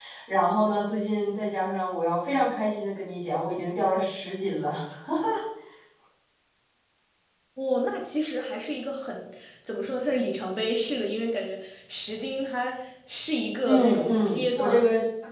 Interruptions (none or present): present